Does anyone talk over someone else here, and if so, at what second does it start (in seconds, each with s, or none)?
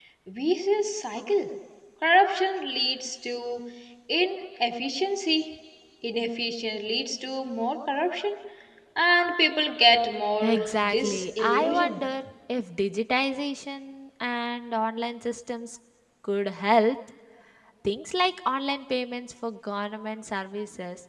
10.4 s